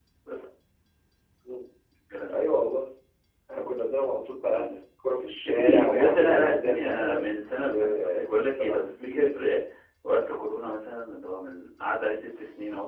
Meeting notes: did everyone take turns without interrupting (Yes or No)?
No